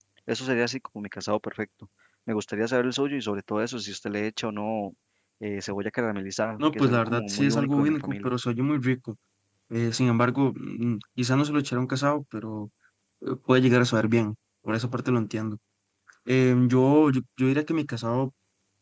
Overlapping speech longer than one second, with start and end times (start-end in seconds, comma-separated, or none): 6.6-8.3